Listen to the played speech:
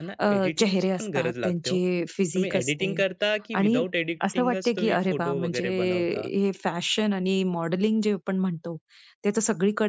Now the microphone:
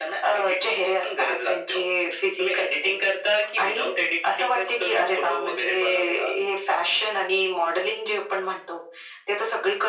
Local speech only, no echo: none

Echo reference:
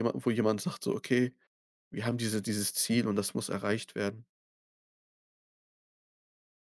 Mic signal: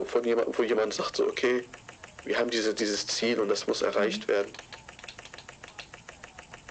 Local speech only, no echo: Mhm.

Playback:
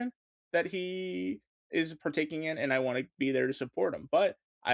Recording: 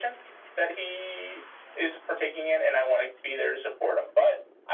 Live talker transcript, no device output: none

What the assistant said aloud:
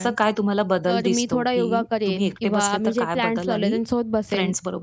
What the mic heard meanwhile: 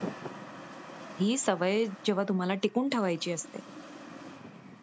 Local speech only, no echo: ही सवय जेव्हा तुम्हाला टिकून ठेवायची असते,

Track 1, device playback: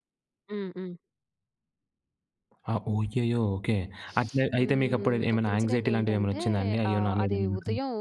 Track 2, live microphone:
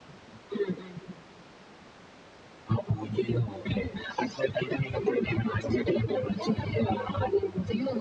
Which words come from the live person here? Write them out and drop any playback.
none

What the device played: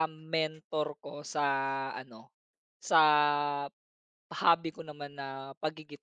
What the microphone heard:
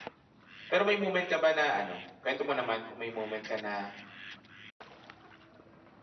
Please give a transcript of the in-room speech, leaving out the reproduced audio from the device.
Pero may moment ka ba na ano, kuwento mo naman kung may moment ka na,

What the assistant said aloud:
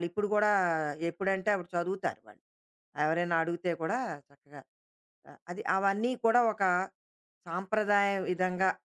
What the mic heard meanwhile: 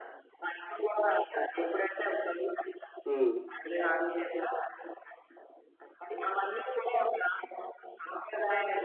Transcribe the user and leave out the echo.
హ్మ్.

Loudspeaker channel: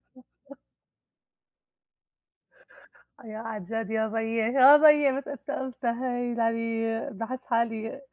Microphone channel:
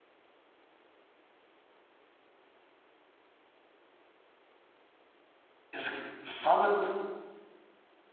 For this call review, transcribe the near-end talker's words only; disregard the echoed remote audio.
اذك بالضبط،

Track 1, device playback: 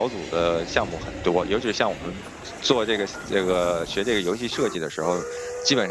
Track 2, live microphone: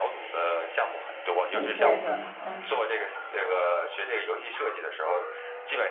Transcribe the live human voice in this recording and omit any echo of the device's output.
底线是吧？嗯，

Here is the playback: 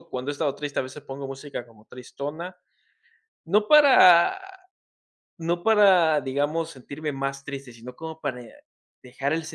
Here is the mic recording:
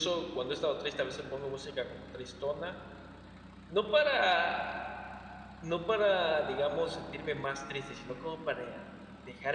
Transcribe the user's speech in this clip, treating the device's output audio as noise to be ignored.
none

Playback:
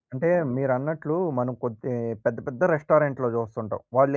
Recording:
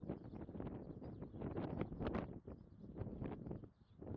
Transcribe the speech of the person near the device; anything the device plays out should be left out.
none

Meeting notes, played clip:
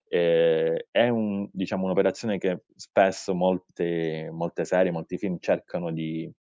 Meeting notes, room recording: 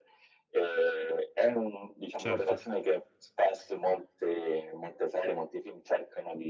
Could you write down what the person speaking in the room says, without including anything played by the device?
certo.

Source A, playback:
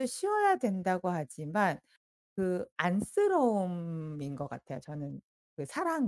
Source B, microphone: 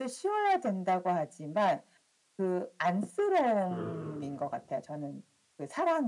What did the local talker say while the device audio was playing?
그렇죠, 그렇

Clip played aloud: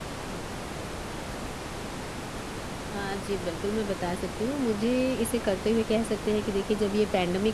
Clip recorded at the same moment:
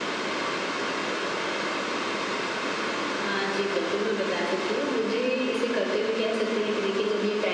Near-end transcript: none

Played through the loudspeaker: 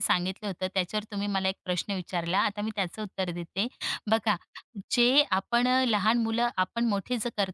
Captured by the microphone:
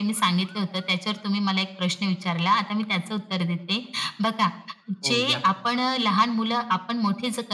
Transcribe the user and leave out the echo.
हो, द्या.

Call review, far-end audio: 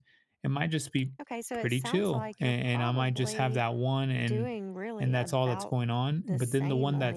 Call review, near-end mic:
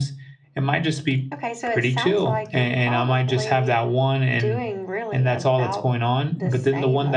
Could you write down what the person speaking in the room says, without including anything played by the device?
none

